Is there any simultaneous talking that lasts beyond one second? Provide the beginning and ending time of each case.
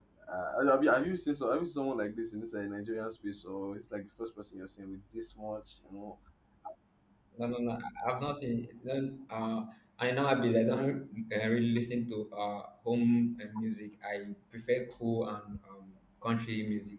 none

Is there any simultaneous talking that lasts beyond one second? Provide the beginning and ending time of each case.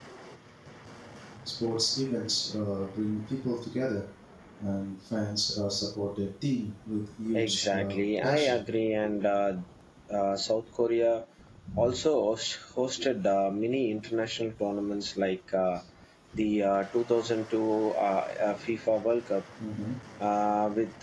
7.3-8.6

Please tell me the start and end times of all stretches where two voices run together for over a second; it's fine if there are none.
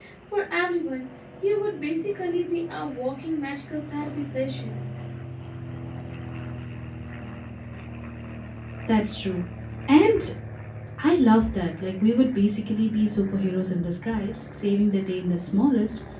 none

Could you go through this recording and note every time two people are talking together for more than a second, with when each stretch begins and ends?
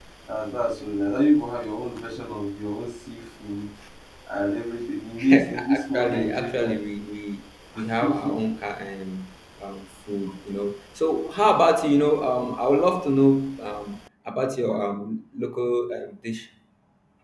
5.3-6.7

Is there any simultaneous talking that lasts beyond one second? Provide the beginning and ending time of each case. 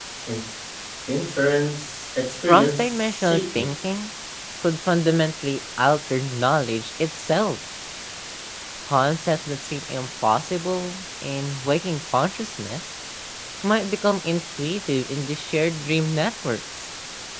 2.5-3.7

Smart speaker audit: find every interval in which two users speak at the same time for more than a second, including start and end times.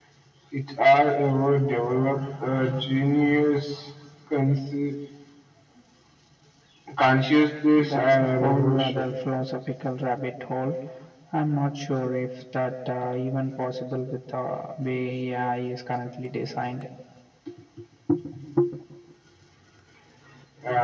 7.8-9.2

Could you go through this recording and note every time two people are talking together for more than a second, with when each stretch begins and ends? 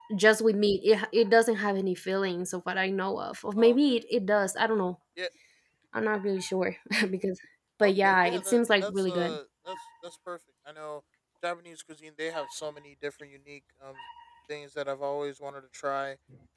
7.8-9.4

